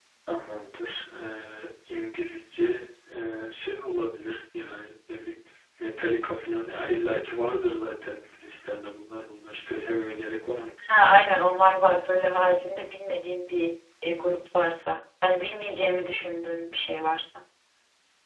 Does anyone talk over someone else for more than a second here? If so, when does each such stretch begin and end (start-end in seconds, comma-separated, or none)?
none